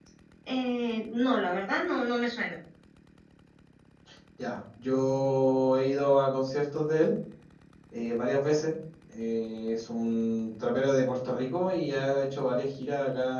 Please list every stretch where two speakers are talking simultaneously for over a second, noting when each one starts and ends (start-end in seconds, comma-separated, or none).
none